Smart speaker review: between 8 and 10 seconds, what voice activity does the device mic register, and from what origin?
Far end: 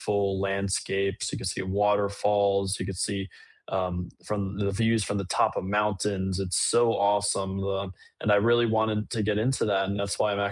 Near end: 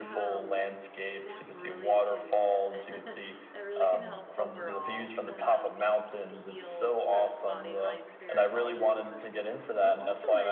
both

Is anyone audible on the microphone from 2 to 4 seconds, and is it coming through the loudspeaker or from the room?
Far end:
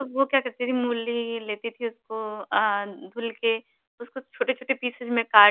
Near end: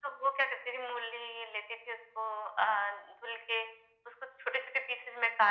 echo only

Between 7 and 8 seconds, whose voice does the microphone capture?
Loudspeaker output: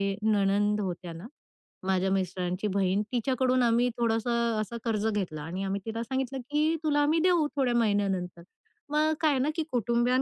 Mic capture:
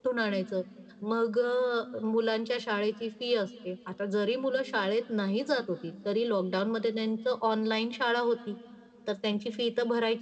user only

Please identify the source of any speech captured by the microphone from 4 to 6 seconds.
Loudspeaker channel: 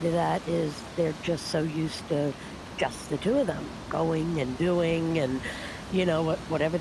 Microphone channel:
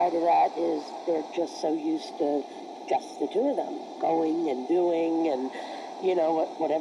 echo only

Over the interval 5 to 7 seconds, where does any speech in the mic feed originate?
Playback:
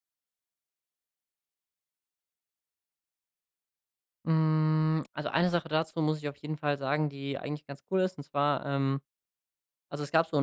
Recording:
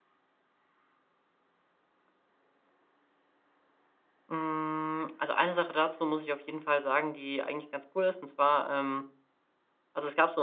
echo only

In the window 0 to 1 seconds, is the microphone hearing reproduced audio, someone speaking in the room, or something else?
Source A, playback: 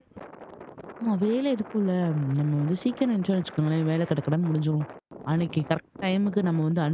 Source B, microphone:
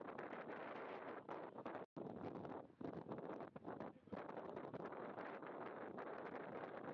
neither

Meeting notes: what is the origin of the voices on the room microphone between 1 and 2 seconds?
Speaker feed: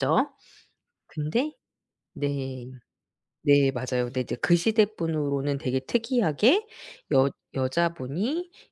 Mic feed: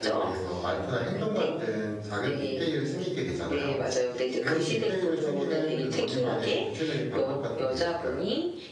both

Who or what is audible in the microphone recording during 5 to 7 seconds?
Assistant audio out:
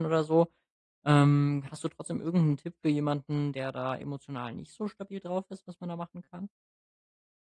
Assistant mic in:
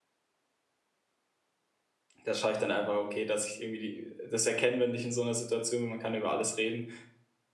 user only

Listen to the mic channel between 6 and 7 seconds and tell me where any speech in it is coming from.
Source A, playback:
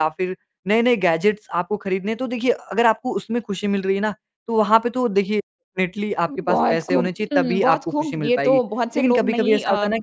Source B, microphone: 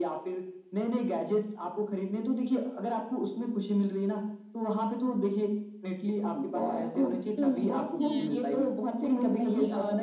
echo only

